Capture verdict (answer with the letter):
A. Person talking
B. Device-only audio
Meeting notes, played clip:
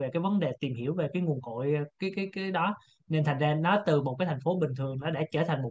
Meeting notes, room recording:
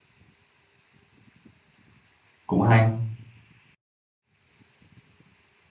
A